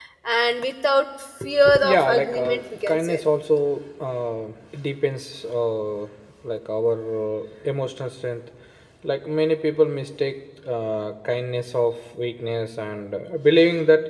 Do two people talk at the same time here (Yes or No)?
Yes